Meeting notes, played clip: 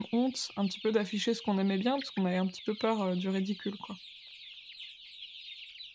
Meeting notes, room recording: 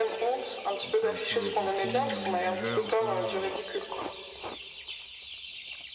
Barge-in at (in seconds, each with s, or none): 0.8 s